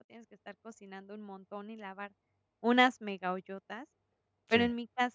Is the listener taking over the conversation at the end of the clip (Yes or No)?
No